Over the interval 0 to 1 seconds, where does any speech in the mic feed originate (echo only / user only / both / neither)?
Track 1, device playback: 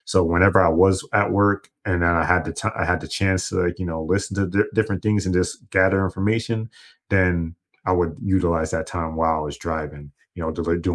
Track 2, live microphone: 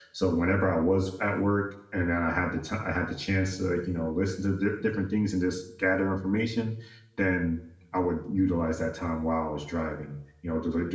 echo only